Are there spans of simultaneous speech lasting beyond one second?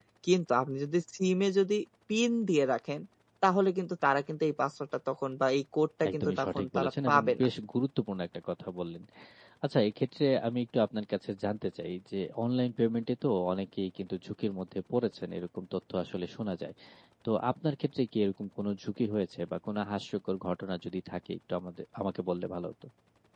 Yes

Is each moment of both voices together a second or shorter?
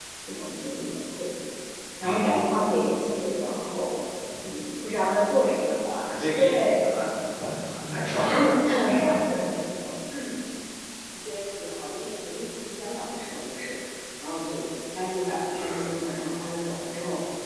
Yes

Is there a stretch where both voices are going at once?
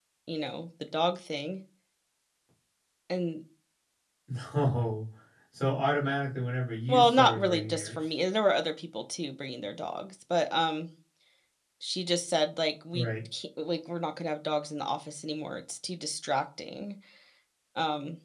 Yes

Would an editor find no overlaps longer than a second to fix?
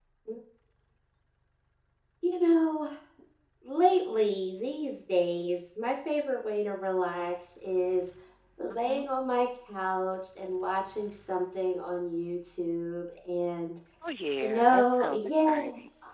No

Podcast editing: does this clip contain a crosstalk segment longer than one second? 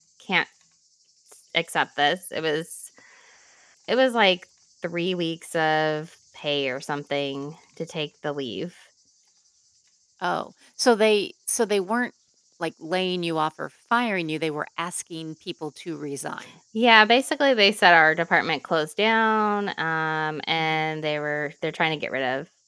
No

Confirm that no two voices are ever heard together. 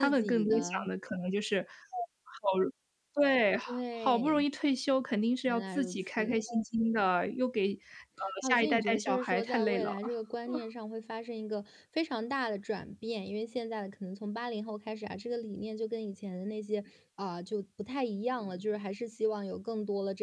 No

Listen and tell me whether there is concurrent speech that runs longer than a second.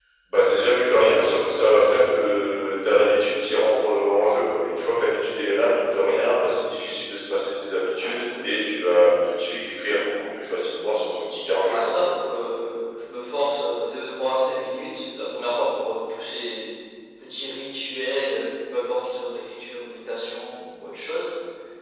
No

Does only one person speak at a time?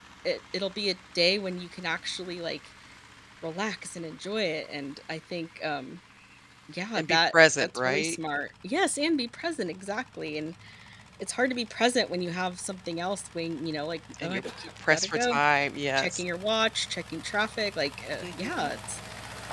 No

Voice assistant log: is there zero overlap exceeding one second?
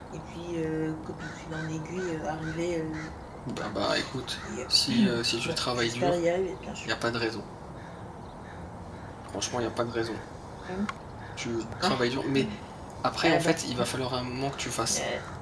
No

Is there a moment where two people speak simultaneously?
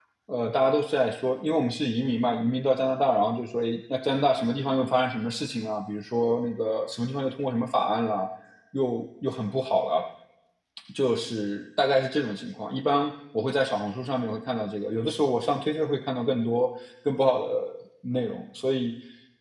No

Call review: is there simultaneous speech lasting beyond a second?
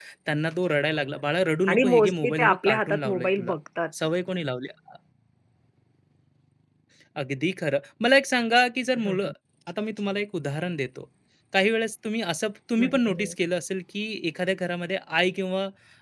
Yes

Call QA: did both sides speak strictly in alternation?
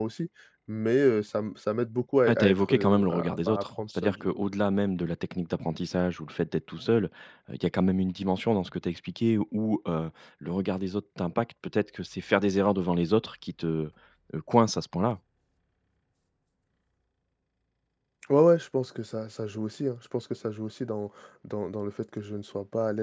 No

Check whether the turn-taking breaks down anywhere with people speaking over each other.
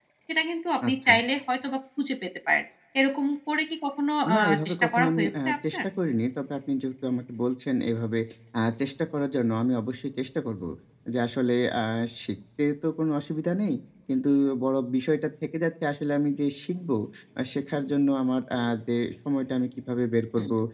Yes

